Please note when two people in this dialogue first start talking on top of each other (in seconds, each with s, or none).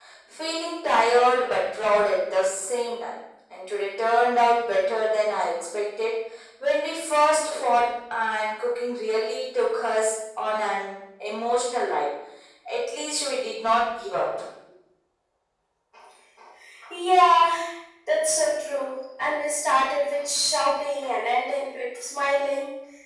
none